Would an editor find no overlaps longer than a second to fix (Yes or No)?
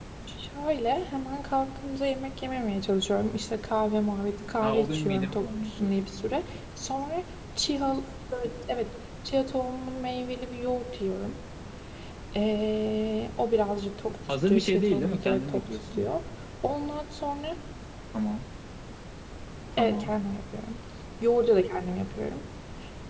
No